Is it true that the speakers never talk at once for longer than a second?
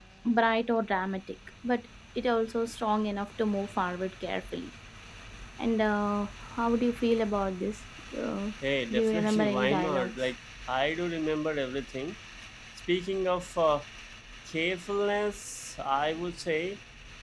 No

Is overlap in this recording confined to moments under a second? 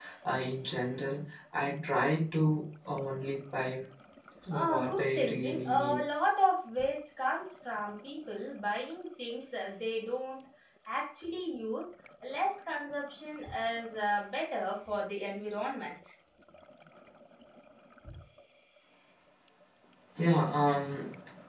No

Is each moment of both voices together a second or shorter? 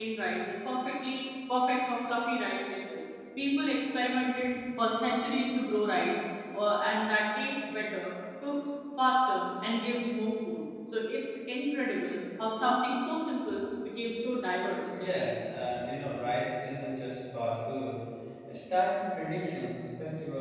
Yes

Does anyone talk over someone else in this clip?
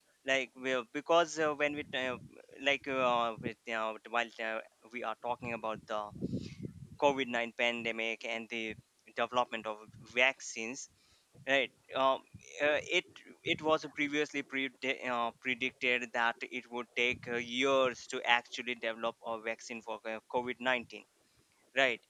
No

